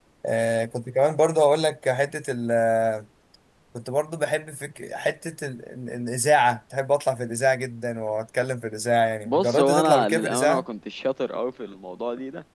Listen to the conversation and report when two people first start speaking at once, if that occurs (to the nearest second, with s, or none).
9 s